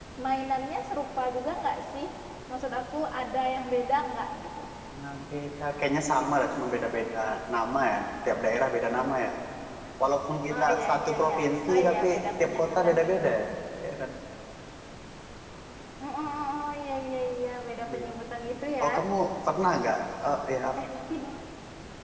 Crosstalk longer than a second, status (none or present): present